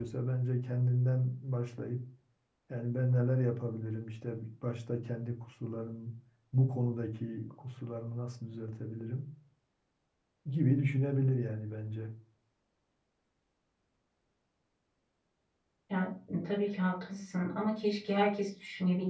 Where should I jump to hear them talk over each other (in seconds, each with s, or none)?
none